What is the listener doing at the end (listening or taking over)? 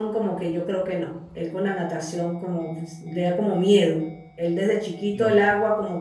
listening